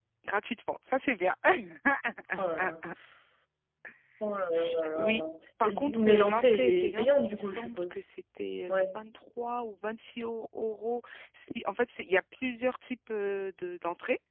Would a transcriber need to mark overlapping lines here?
Yes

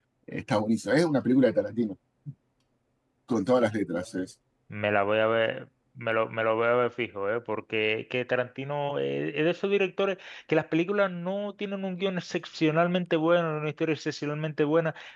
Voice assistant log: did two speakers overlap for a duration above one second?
No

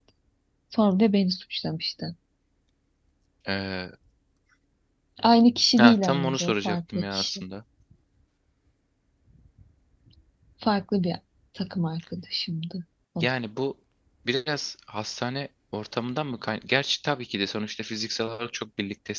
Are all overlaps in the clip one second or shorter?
No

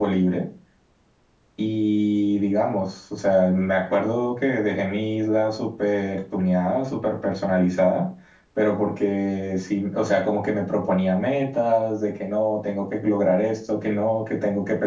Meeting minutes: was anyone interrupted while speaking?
No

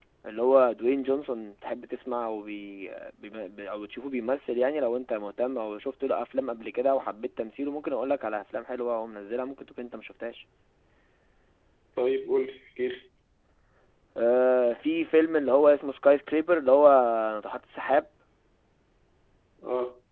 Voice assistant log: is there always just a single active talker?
Yes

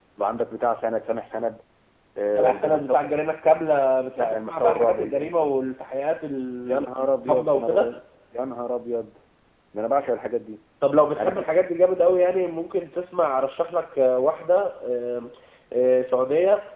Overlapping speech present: Yes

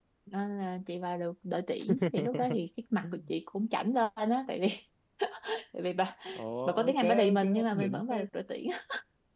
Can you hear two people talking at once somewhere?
Yes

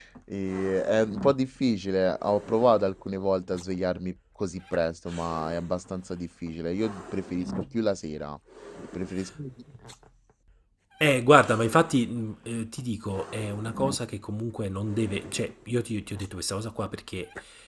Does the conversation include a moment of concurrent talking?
No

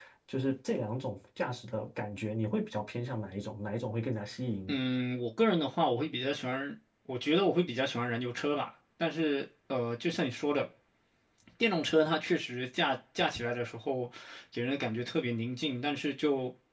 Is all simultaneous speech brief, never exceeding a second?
Yes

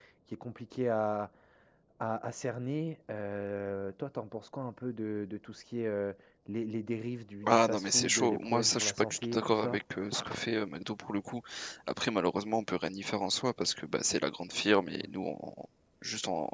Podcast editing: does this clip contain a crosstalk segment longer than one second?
Yes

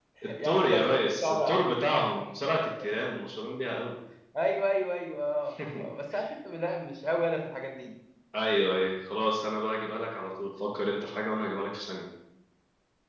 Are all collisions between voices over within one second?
No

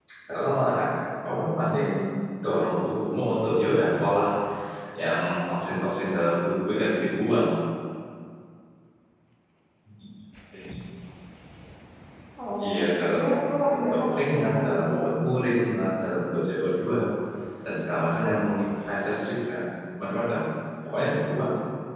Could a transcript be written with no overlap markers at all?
No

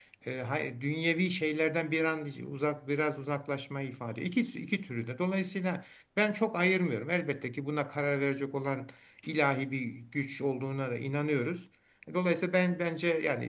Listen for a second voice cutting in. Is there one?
No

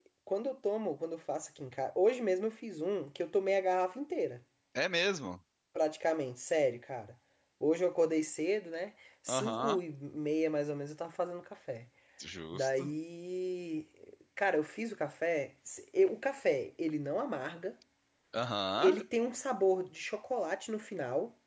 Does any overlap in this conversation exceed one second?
No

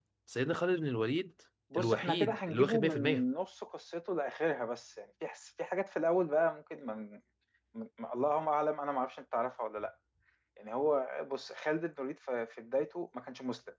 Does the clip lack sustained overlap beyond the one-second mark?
No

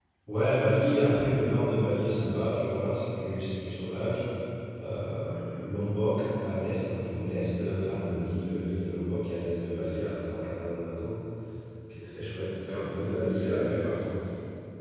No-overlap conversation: No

